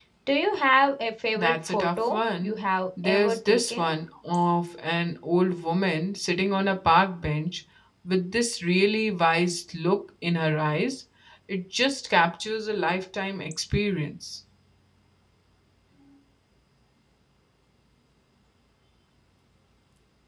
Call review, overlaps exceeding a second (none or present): present